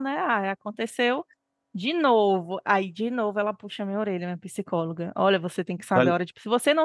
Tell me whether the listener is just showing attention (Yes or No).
Yes